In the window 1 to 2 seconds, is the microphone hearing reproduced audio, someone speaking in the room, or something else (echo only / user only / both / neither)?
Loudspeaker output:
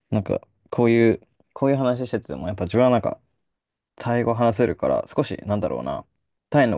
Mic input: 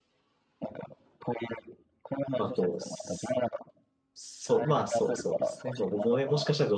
echo only